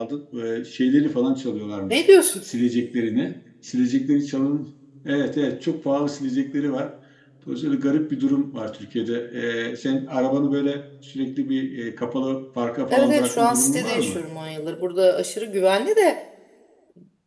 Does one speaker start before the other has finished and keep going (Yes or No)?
Yes